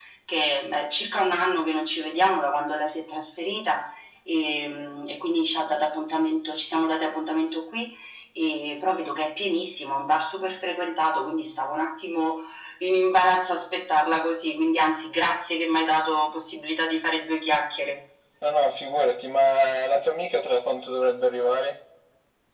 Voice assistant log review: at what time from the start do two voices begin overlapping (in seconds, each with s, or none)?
none